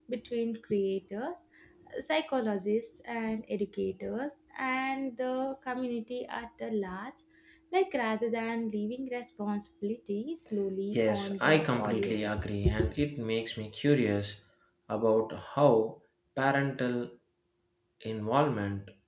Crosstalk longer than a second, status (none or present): present